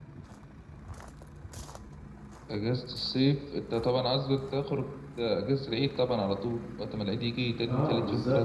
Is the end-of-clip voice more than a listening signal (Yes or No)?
Yes